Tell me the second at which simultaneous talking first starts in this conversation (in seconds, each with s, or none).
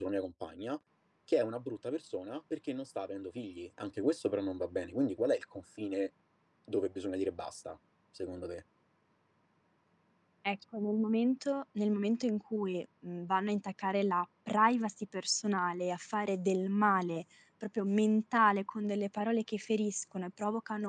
none